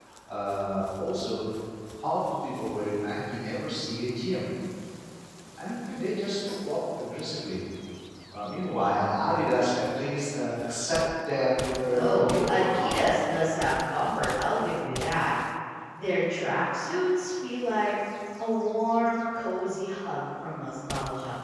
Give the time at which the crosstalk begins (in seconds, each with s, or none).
11.9 s